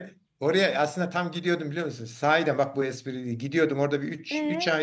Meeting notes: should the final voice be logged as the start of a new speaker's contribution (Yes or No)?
No